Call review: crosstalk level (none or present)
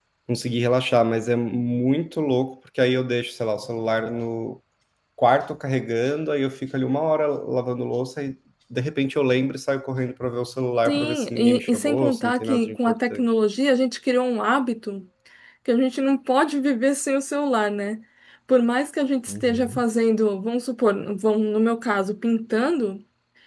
present